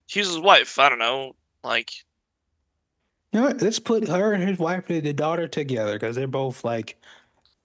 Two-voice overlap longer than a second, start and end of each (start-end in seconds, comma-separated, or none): none